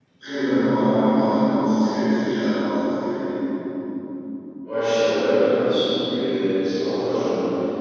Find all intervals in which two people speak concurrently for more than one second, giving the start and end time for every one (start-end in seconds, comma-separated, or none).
none